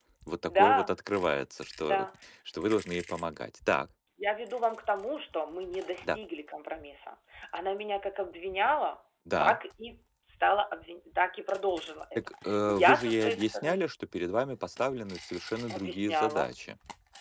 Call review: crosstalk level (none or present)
present